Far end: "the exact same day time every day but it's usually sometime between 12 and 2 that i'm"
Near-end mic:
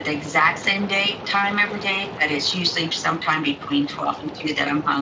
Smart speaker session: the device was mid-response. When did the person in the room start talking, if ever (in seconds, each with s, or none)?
none